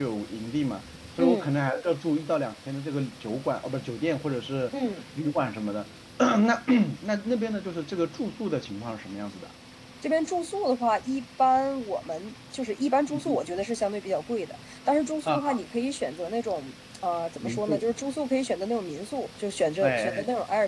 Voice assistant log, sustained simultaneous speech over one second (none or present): none